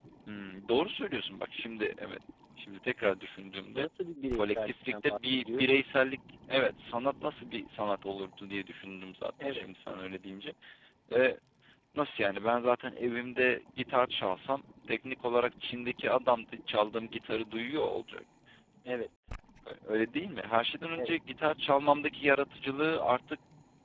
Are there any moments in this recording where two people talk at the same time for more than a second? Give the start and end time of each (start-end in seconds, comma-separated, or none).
4.3-5.8